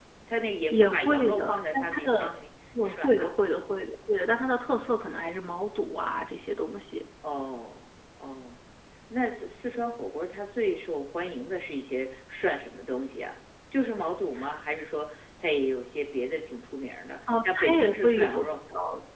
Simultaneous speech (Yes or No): Yes